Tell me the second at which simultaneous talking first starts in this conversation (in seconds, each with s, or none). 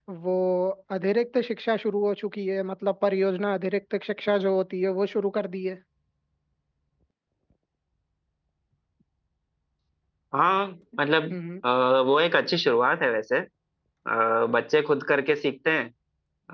none